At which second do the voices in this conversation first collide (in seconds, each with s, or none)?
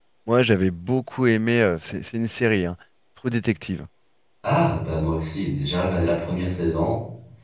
none